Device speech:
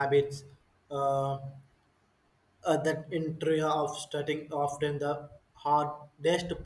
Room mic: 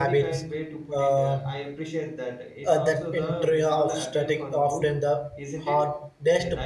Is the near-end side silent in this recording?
No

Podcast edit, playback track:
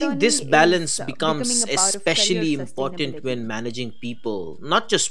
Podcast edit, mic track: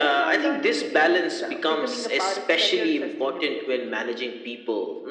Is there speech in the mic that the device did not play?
No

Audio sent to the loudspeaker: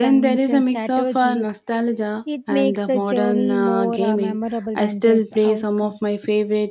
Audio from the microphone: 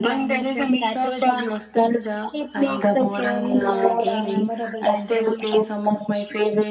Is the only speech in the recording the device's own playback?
Yes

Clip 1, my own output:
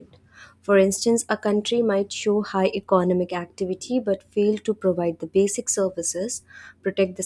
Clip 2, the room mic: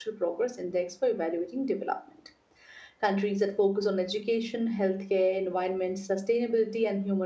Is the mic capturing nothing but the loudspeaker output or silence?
No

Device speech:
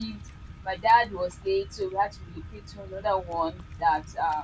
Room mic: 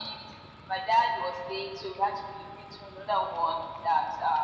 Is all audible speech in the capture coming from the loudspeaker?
Yes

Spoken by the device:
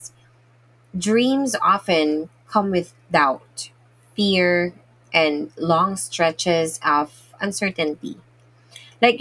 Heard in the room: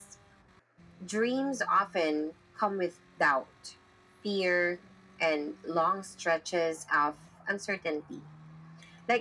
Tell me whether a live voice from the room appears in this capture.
No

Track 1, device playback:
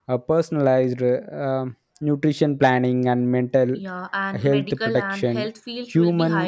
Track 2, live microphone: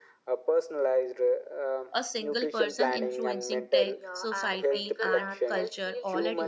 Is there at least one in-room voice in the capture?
Yes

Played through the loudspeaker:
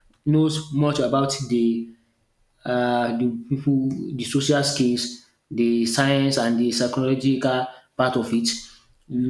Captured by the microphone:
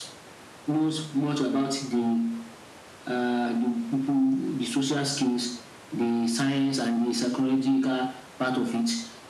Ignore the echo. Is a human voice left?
No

